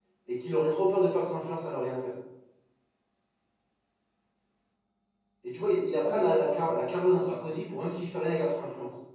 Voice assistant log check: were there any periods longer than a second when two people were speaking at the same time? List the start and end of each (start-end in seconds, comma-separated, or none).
6.0-7.3